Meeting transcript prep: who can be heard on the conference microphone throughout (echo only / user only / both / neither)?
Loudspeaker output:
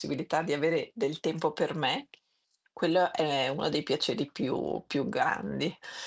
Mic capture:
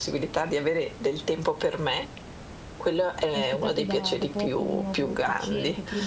both